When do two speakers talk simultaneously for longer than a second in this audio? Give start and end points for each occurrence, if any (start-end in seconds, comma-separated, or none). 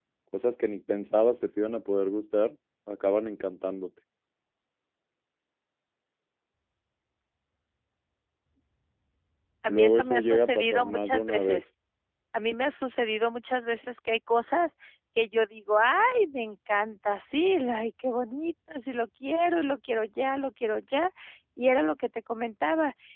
9.7-11.6